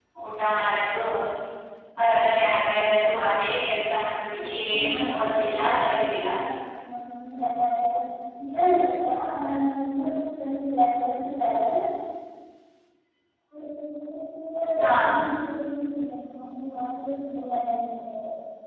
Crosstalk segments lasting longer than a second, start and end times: 4.7-6.3

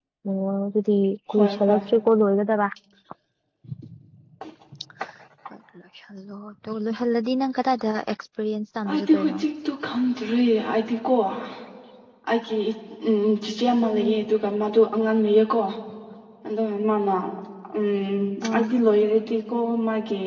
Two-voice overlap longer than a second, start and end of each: none

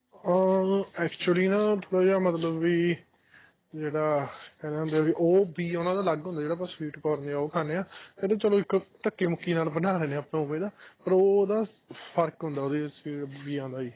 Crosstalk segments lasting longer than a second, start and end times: none

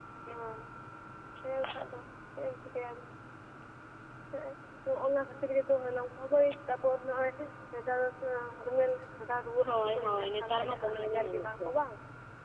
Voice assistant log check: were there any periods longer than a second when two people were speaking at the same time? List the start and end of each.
9.6-11.7

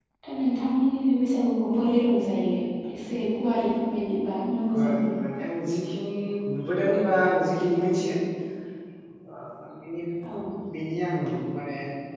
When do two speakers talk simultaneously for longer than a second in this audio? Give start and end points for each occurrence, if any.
none

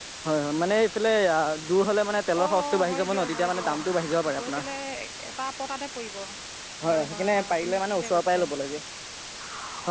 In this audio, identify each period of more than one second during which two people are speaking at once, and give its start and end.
2.4-3.8, 6.9-8.4

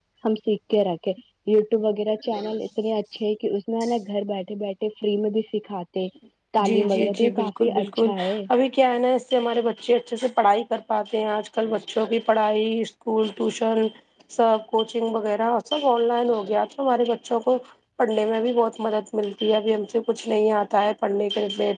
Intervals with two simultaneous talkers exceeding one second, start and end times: 6.7-8.1

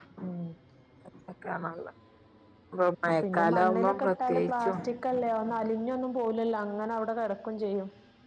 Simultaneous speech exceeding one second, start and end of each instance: 3.2-4.8

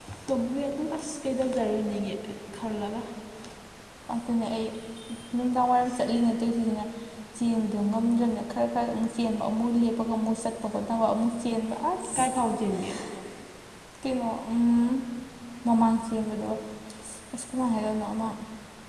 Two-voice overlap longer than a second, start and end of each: none

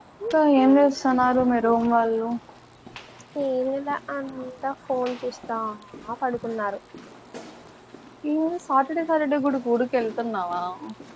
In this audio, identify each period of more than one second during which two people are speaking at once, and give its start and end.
none

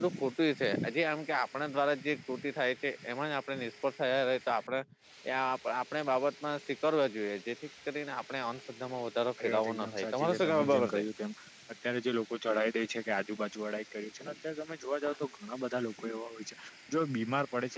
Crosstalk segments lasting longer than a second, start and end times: 9.4-11.0

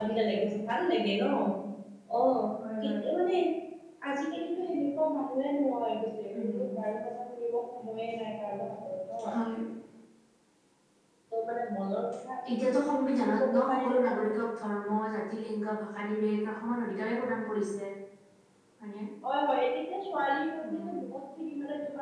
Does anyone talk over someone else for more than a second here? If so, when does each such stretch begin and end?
12.6-14.5

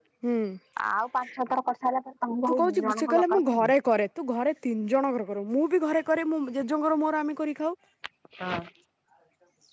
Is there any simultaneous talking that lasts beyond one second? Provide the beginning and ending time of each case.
2.5-3.7

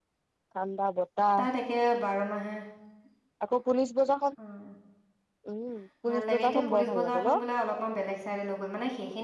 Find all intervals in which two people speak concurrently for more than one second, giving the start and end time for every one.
6.1-7.4

